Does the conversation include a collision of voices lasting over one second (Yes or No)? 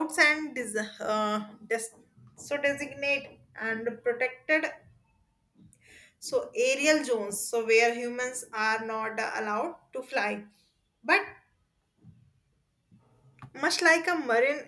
No